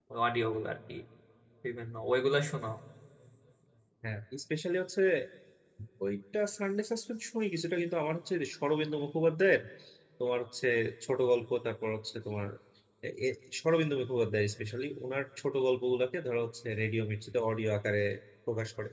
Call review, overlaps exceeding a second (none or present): none